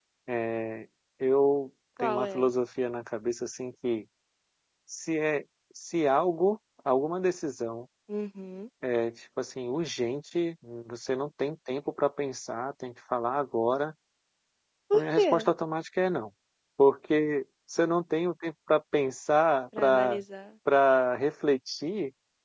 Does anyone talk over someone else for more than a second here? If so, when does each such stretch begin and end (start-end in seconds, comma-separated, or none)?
none